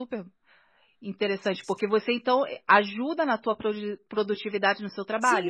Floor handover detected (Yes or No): Yes